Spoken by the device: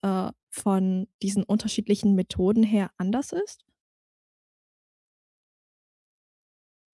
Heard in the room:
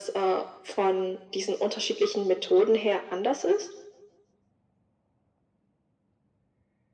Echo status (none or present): present